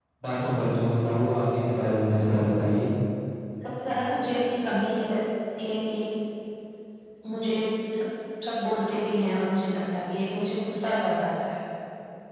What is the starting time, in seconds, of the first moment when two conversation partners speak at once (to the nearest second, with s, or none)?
none